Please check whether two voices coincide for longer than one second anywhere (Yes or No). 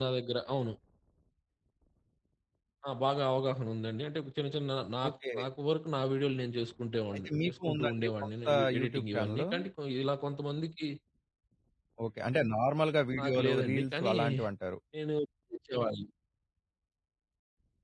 Yes